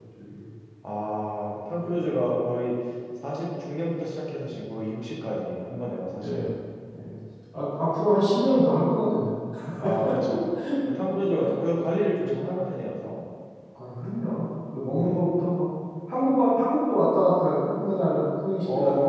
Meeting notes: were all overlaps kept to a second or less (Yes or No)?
Yes